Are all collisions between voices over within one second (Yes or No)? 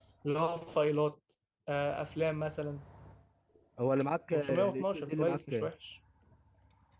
No